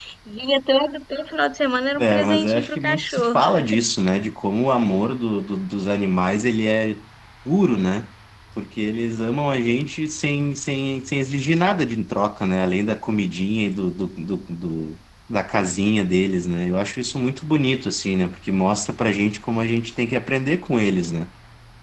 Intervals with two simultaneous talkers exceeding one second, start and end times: 2.0-3.4

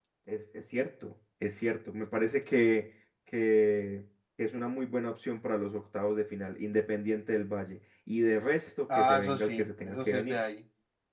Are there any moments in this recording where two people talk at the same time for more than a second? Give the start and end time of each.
8.9-10.4

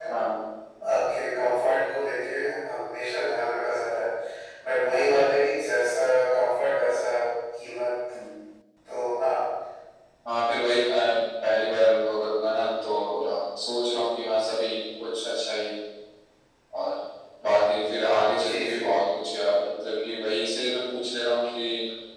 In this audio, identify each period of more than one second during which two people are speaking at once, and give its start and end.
none

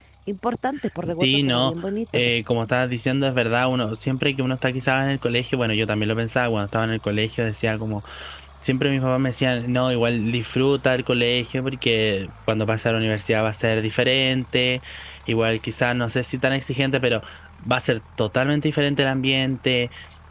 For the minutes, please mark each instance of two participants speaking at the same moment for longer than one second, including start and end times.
none

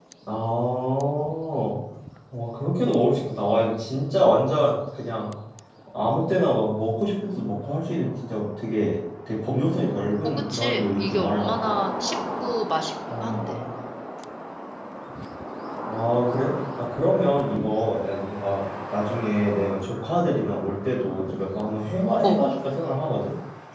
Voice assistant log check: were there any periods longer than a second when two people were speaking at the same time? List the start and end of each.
10.2-11.6

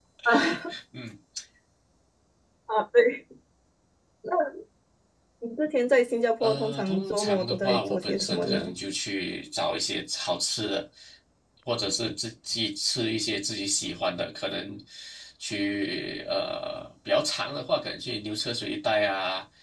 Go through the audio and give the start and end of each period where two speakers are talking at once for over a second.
6.4-8.7

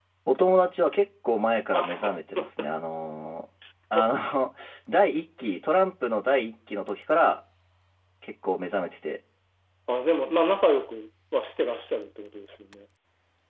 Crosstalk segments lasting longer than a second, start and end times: none

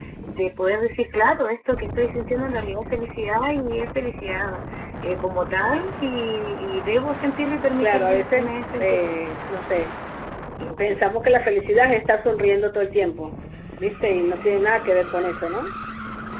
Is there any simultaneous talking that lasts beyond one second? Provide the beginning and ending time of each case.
7.8-9.2

